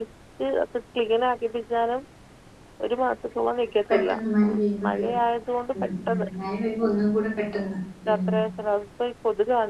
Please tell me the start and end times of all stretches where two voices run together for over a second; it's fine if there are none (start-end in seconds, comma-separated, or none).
3.9-5.2